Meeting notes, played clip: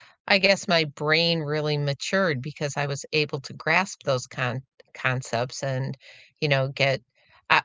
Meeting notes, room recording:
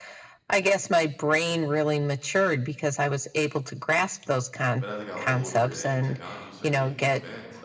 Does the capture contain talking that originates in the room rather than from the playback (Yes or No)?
Yes